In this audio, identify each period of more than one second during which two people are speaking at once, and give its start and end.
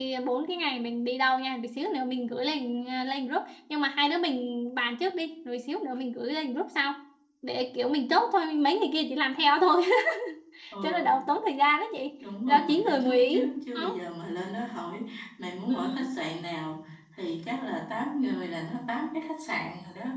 12.5-13.9

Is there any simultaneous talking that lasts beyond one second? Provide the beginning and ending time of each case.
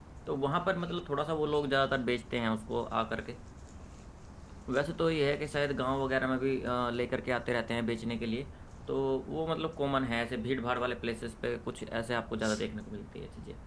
none

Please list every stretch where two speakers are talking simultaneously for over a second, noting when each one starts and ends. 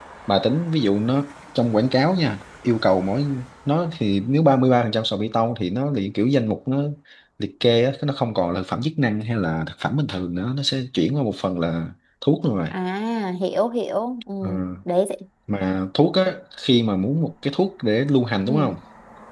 none

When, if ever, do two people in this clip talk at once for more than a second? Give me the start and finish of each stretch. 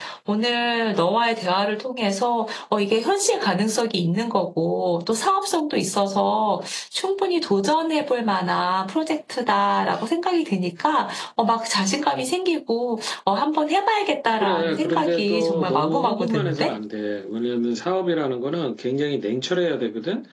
14.4-16.8

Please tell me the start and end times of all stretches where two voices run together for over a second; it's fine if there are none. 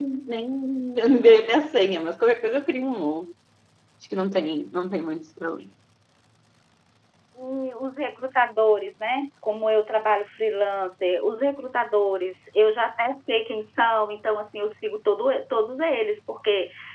none

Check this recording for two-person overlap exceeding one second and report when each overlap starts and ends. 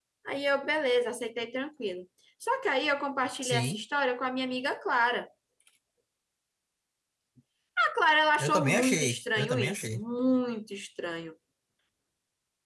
8.4-10.0

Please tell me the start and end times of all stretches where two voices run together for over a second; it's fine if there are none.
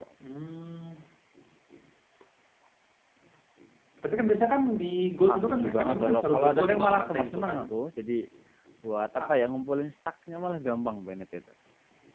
5.3-7.6

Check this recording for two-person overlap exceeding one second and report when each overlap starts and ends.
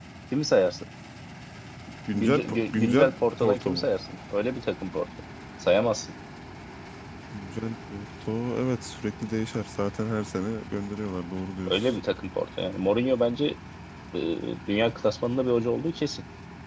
2.1-3.9

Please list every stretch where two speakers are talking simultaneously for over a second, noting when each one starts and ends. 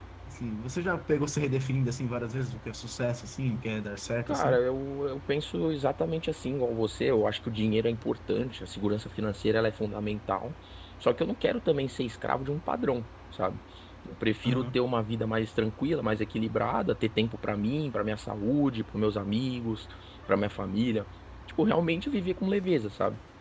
none

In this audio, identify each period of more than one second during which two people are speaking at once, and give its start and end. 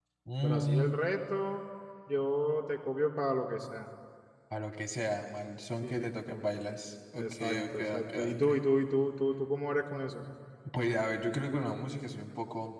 7.2-8.5

